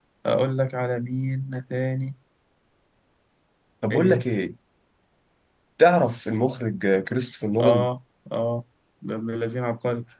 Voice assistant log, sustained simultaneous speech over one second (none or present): none